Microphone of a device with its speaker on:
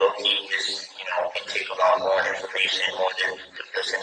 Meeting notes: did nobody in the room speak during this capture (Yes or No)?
Yes